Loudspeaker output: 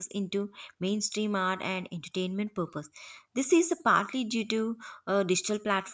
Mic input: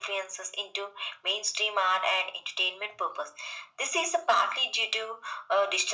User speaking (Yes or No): No